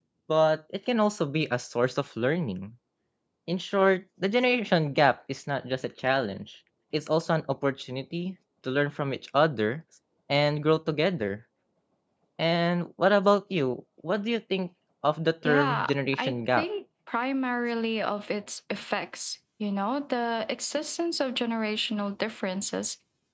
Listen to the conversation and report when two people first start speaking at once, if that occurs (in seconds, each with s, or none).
15.4 s